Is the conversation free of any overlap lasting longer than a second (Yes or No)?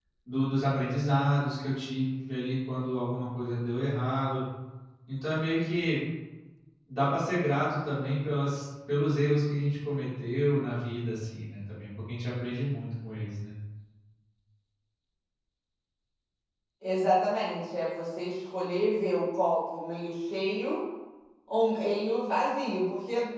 Yes